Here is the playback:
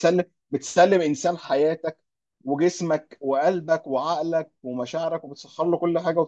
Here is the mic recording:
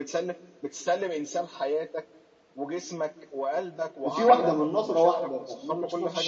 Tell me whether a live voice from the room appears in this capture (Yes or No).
Yes